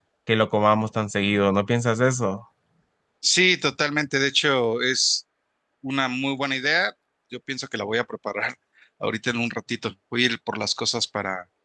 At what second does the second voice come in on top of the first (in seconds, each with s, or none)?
none